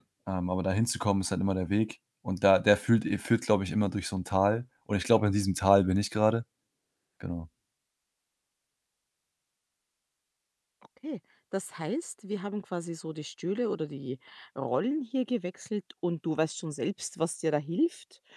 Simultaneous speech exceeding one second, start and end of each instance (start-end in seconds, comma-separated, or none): none